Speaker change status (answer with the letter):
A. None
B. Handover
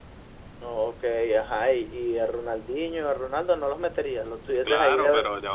B